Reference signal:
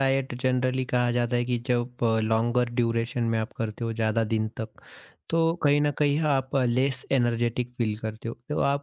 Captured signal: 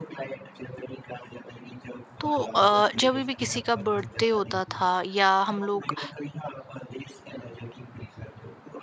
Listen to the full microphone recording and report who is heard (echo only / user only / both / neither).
both